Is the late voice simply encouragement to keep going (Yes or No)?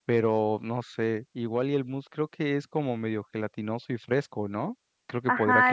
No